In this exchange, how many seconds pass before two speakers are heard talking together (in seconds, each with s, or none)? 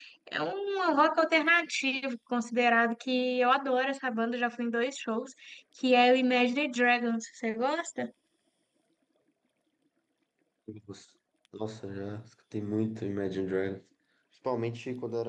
none